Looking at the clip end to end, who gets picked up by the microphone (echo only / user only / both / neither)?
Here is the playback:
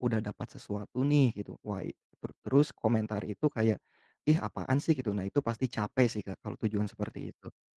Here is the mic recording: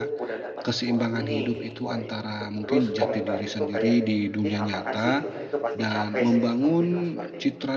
both